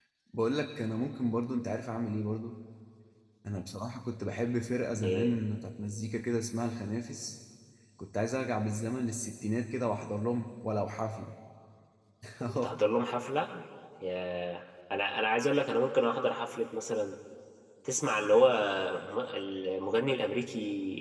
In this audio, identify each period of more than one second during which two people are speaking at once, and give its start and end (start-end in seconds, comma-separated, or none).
none